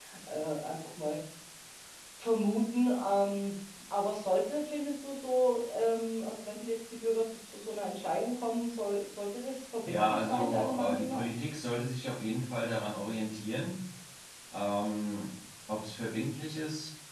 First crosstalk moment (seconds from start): 9.8 s

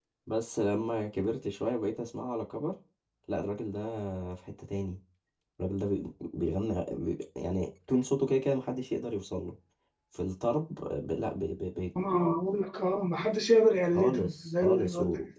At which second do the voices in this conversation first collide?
13.9 s

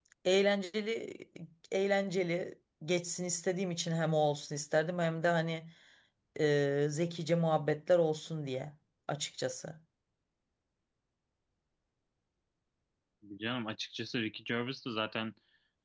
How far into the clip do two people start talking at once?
none

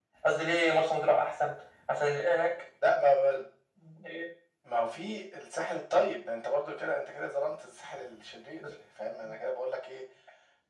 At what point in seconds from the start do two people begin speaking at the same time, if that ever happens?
none

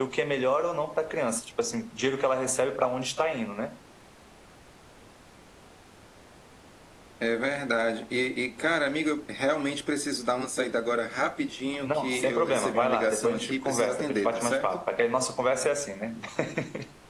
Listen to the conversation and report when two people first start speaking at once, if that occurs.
11.8 s

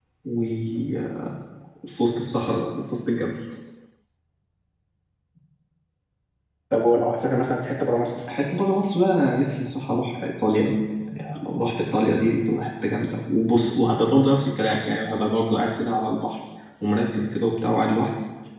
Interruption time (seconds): none

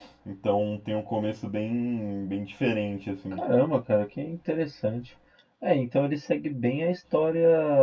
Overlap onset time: none

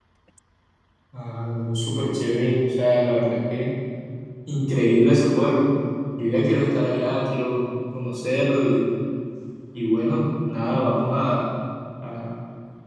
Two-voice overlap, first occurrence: none

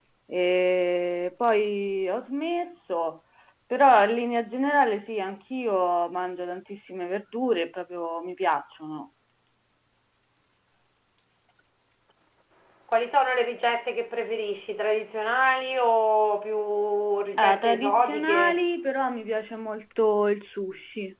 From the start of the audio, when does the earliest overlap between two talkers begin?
17.3 s

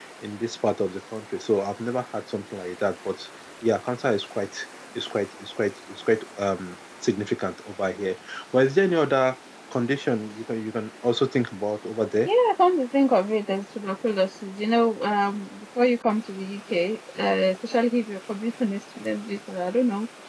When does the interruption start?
none

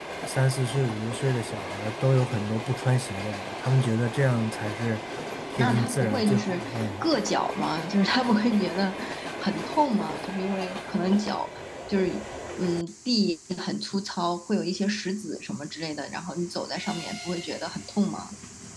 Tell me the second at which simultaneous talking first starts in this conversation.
5.6 s

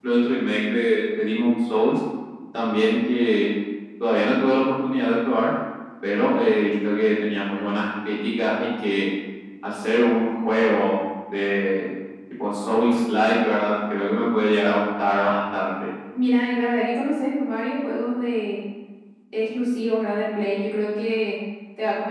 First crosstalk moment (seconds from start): none

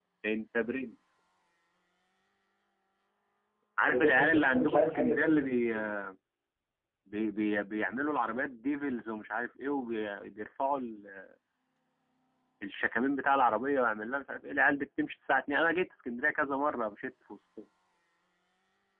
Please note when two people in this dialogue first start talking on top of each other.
3.9 s

